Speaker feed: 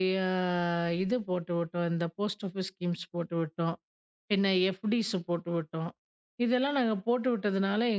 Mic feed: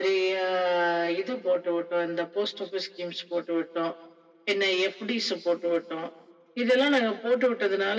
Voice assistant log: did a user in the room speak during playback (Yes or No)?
No